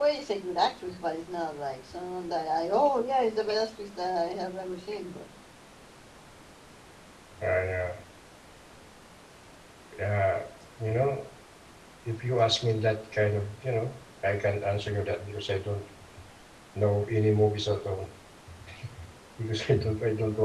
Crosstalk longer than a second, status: none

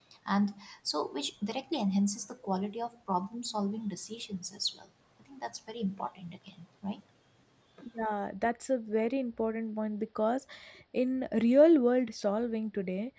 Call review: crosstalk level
none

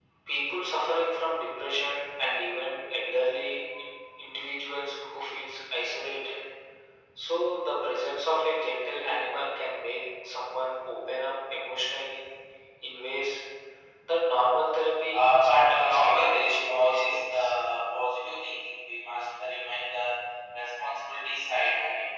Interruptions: present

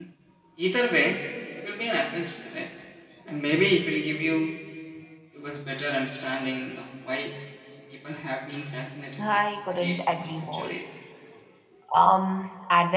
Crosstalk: present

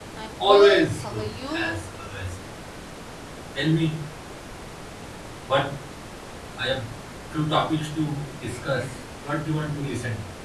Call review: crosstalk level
present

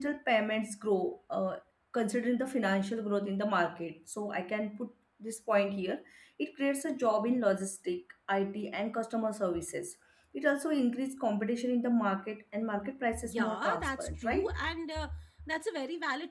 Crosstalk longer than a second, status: present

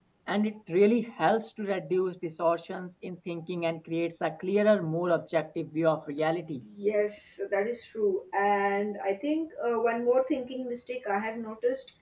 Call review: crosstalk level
none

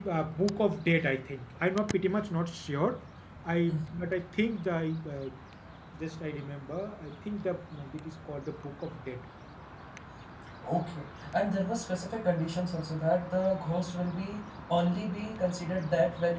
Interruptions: none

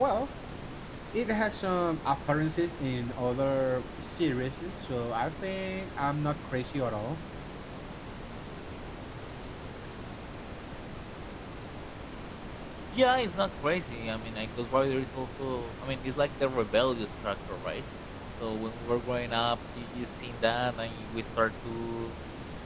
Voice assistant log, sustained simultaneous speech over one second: none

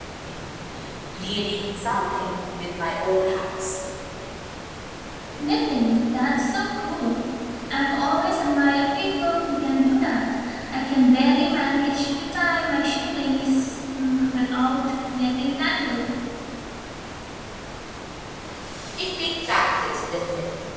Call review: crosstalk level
none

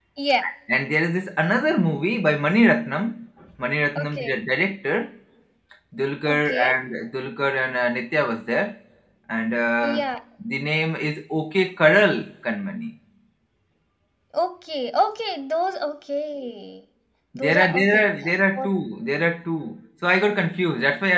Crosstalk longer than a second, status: present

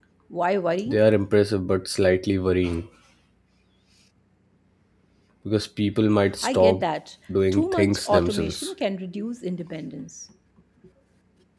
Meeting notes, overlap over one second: present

